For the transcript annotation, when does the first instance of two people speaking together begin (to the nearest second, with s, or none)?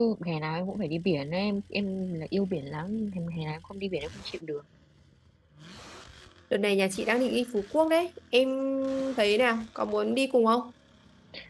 none